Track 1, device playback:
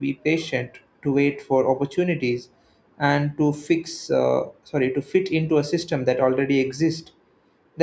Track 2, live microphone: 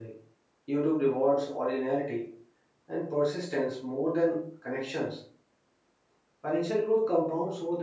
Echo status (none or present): none